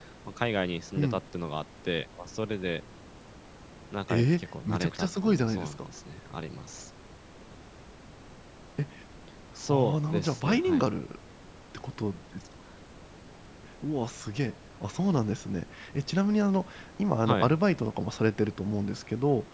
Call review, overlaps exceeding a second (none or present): present